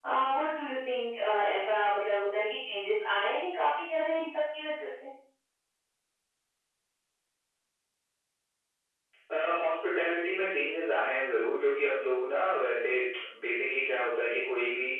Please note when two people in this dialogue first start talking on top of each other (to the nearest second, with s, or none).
none